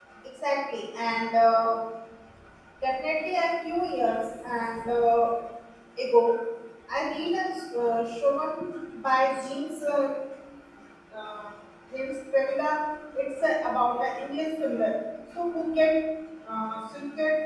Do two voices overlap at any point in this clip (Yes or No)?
No